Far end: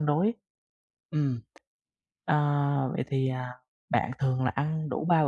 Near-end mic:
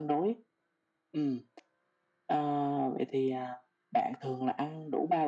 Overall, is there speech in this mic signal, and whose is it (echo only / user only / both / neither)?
echo only